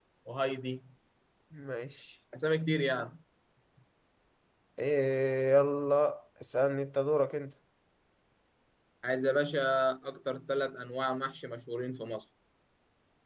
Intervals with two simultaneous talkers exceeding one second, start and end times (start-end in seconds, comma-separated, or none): none